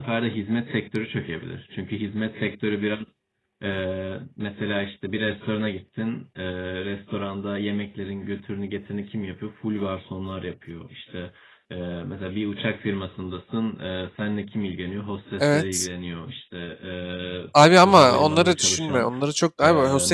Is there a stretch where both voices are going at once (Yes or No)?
Yes